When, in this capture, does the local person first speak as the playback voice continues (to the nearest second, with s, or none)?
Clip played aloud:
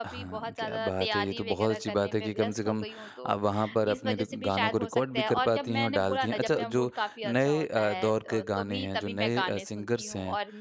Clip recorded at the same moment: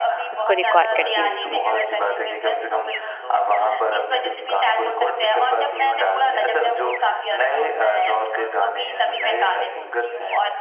0 s